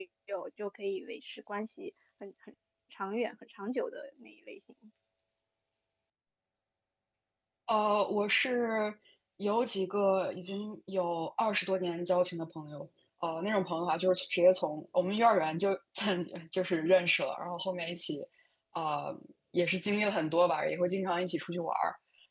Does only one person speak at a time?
Yes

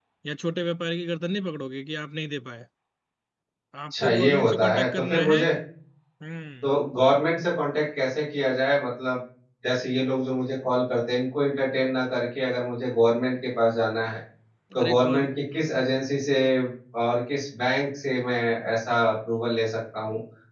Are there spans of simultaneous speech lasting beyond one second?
Yes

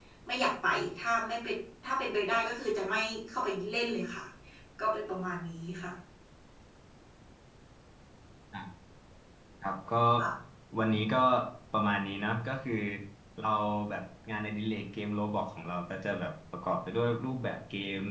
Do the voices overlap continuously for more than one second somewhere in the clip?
No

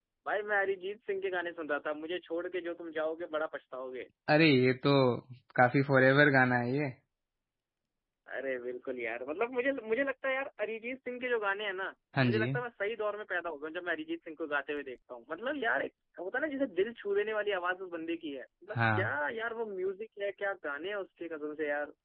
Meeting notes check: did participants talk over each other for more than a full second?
No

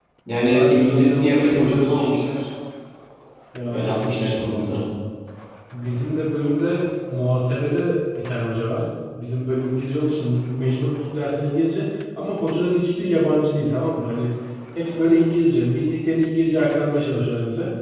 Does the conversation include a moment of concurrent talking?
Yes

